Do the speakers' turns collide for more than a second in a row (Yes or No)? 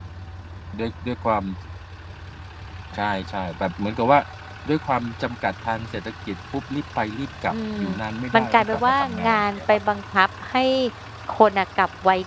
Yes